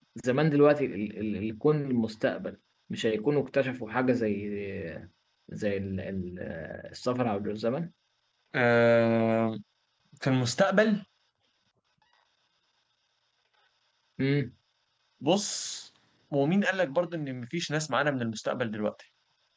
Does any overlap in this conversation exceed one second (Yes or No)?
No